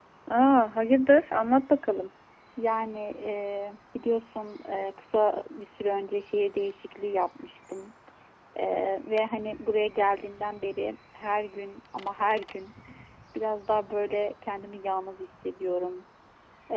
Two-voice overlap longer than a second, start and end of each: none

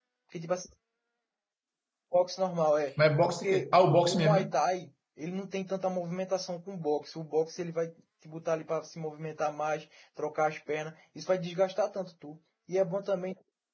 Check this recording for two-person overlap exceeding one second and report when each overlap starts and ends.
3.3-4.5

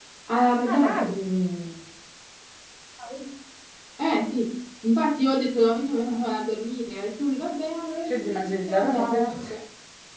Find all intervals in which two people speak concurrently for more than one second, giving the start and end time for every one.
8.1-9.5

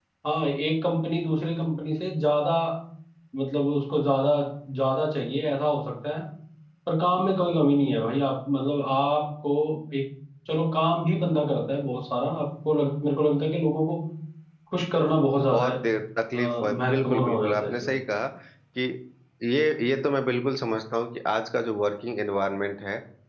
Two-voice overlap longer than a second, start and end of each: 16.4-17.9

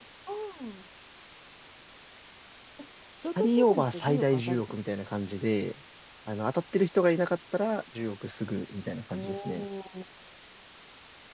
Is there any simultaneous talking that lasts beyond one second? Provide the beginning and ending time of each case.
3.4-4.8

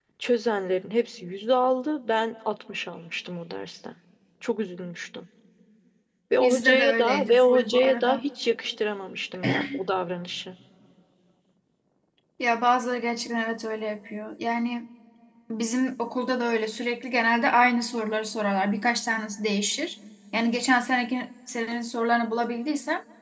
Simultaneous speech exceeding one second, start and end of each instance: 6.4-8.2

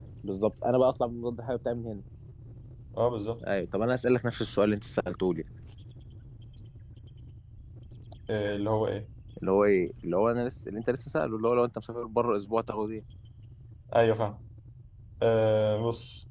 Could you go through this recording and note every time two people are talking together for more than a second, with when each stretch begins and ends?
none

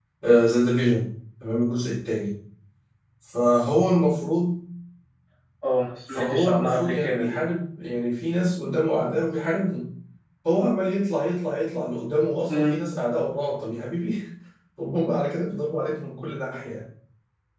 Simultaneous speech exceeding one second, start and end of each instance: 6.1-7.4

